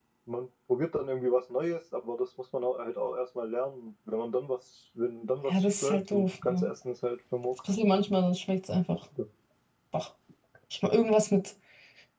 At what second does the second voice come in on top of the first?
5.5 s

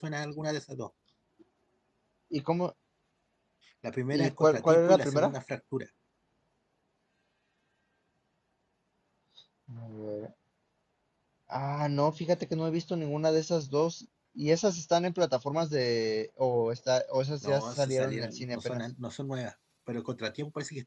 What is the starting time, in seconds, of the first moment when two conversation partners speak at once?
4.1 s

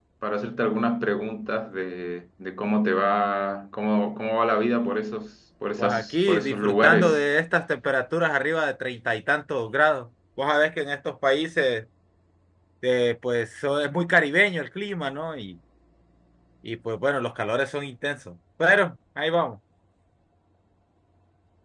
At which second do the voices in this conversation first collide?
5.8 s

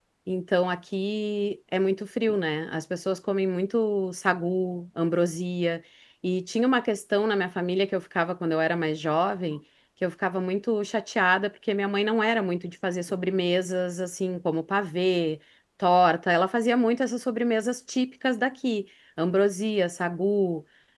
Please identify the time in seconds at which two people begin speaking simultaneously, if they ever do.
none

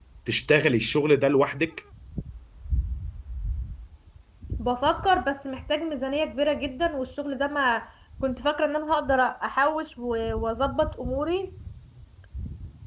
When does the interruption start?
none

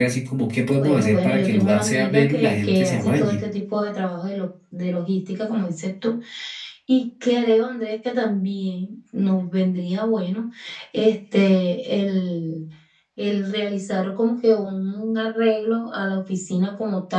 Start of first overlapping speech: 0.8 s

